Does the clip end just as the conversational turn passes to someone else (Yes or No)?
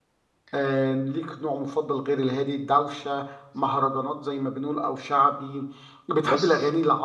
No